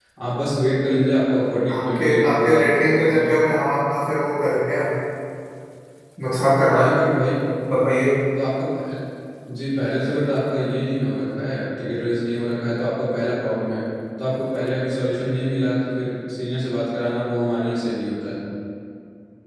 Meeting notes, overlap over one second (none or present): present